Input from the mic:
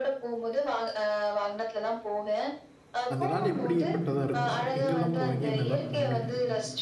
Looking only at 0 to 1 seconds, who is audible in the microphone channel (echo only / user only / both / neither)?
echo only